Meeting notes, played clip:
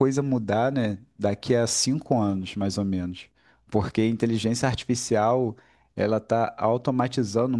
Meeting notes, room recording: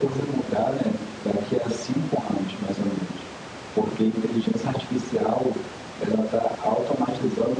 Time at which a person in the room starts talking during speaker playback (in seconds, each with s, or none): none